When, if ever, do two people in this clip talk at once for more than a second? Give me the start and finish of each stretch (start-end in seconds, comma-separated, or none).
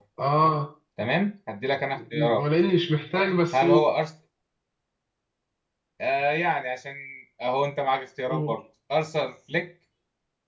none